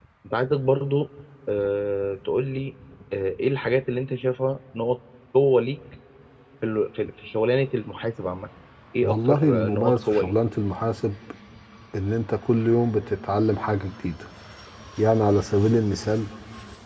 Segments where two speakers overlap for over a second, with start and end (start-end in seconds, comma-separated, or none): 9.0-10.3